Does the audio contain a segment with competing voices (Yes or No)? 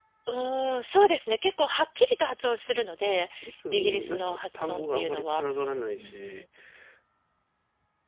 Yes